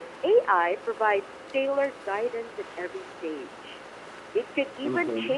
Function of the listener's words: listening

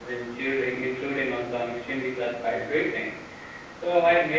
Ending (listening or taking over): listening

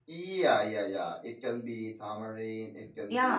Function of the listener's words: taking over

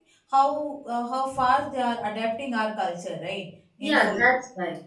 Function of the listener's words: taking over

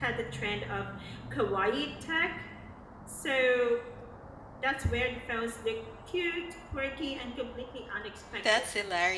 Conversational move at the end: taking over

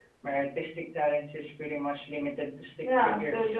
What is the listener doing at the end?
taking over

